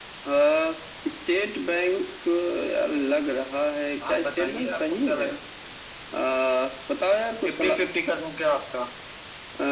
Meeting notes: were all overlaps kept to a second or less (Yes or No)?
No